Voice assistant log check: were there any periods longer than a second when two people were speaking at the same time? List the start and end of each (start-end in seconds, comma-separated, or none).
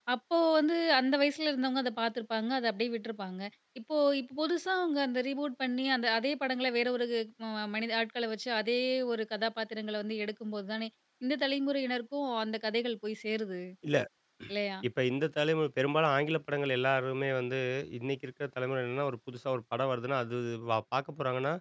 none